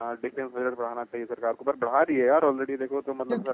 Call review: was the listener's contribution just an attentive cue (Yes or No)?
Yes